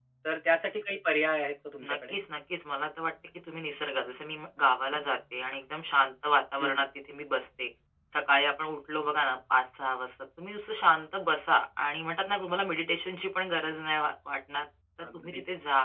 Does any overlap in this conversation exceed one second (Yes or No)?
No